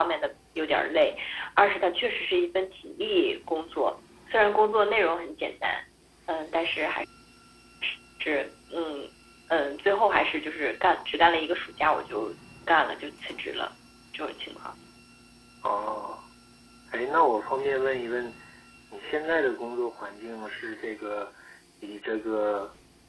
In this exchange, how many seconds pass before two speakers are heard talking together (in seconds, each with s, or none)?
none